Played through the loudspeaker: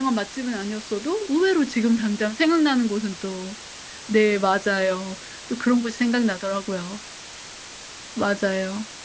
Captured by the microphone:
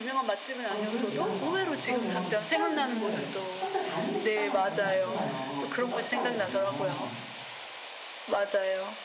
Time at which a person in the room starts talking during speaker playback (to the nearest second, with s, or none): 1 s